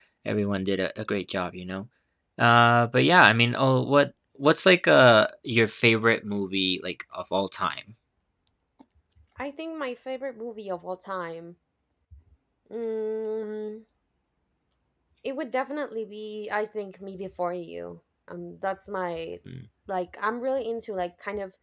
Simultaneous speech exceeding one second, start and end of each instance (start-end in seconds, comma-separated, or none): none